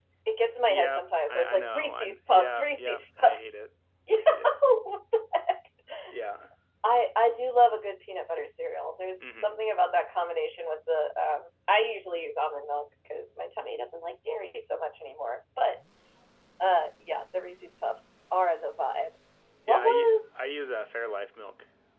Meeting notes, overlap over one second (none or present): present